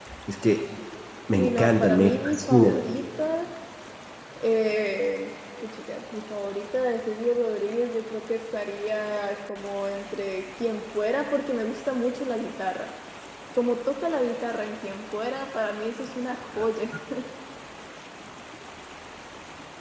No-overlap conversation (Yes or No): No